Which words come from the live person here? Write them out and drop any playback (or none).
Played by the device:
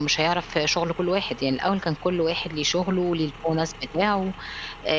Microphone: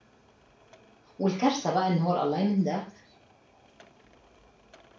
والكارثة بقى إن هو الalignment ده